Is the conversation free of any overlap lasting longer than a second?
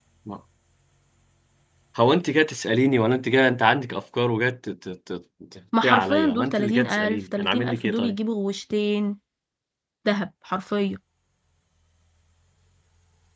No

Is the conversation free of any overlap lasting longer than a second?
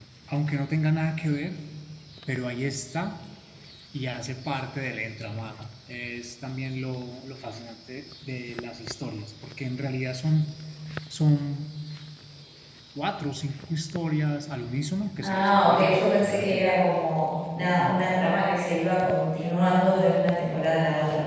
No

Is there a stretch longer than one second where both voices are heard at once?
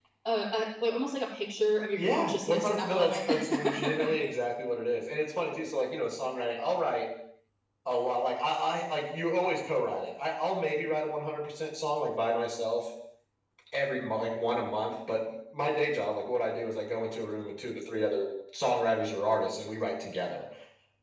Yes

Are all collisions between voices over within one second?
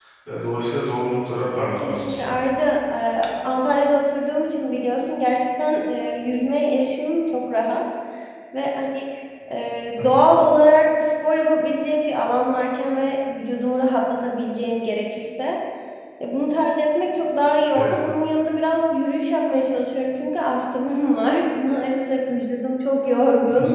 Yes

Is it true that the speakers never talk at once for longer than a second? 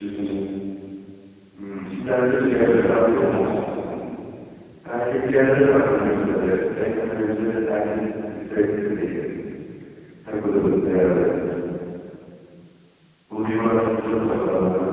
No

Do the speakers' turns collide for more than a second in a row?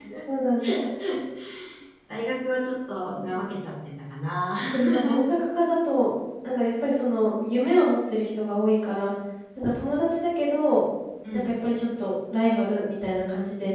No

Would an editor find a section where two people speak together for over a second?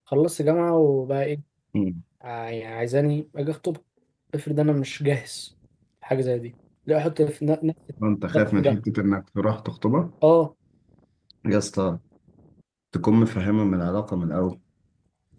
No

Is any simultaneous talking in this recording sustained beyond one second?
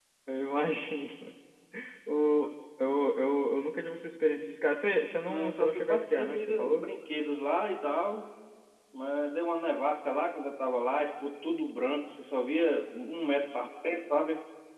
Yes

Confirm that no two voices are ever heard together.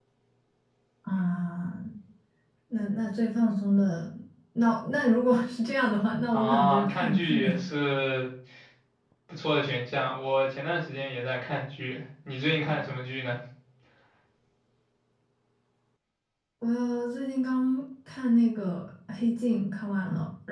No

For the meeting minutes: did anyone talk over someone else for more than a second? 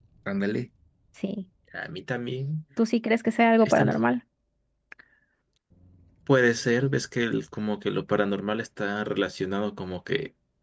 No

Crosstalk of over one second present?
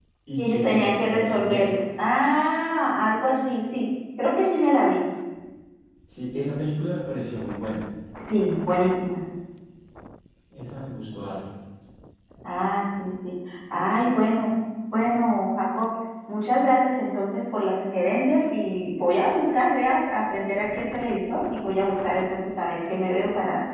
Yes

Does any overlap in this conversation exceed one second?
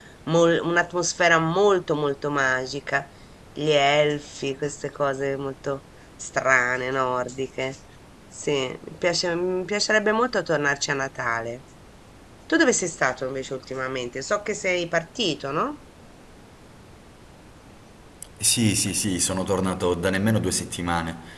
No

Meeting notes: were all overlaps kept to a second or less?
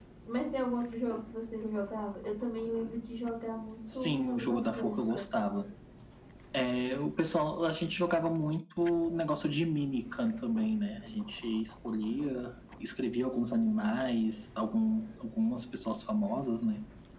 No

